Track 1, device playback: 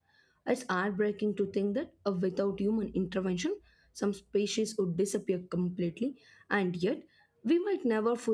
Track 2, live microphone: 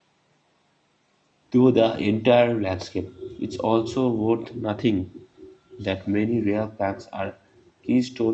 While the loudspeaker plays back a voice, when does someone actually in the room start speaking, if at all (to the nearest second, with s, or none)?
2 s